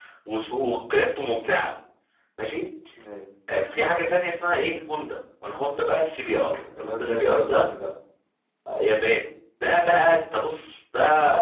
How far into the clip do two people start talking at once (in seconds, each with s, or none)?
6.2 s